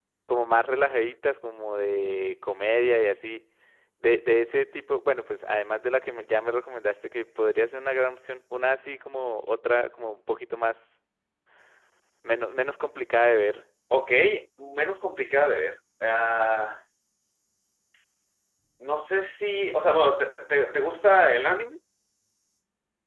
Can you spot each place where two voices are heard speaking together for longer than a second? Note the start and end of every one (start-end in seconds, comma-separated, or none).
none